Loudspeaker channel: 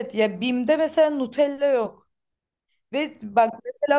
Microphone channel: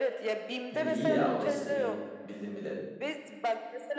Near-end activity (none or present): present